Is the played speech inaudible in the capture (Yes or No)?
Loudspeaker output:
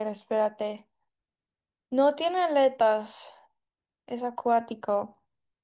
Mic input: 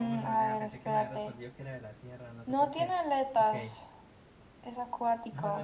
No